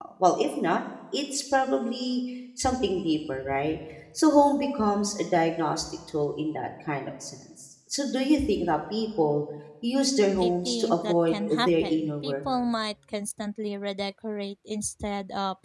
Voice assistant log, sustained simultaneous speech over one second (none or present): present